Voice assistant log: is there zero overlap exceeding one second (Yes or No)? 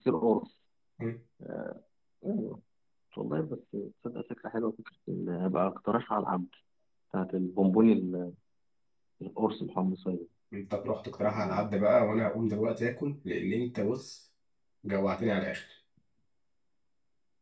Yes